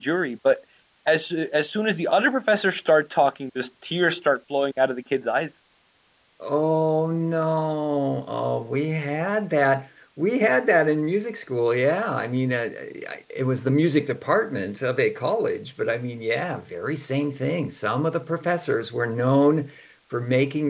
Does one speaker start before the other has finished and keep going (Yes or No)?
No